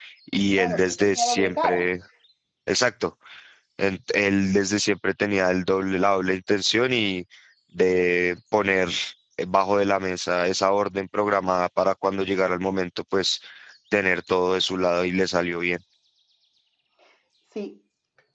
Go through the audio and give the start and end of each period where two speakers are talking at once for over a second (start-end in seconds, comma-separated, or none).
0.6-1.8